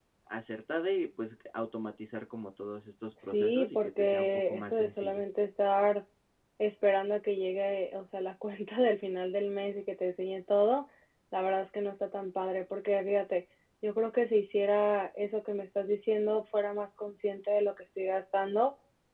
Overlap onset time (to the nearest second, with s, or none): 3 s